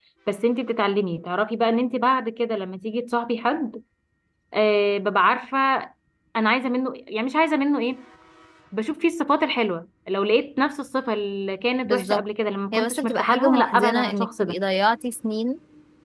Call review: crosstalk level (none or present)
present